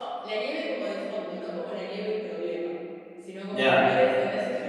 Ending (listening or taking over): listening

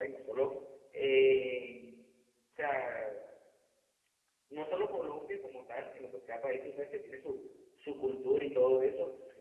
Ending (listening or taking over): listening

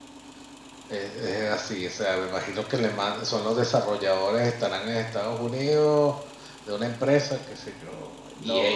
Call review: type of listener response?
taking over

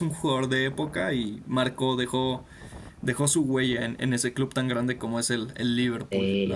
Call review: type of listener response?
taking over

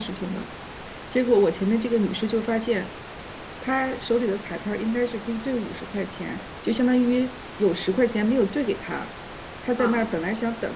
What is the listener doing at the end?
listening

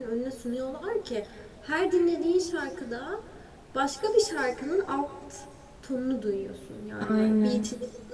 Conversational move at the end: listening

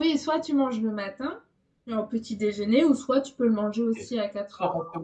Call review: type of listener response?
taking over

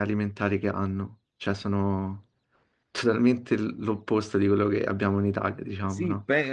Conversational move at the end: taking over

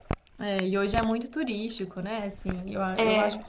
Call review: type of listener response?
listening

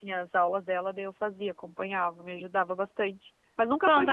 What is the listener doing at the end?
taking over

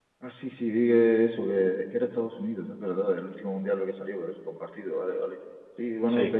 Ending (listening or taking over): listening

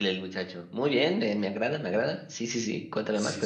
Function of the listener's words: taking over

